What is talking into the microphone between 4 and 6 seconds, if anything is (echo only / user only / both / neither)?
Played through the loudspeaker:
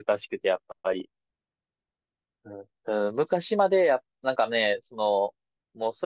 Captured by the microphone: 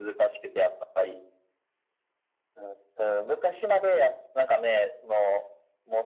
echo only